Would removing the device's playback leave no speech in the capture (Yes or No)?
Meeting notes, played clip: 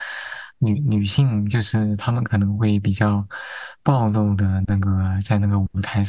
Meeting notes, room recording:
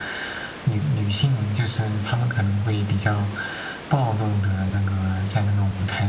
Yes